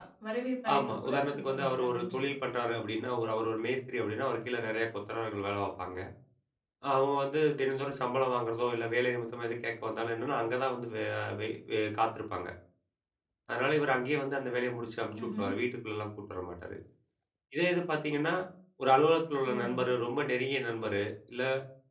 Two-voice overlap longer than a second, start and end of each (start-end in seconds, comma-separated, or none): 0.7-2.3